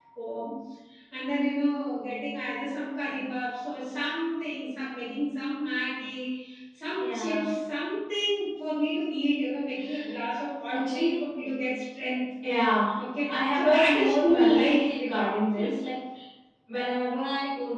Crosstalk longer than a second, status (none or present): present